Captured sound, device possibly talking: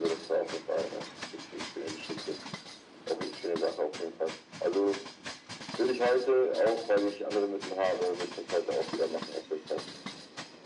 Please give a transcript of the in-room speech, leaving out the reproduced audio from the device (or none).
none